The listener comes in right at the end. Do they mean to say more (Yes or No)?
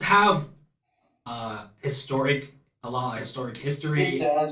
Yes